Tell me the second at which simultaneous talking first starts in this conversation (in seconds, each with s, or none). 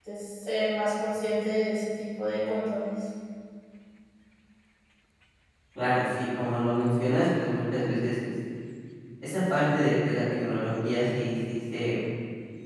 none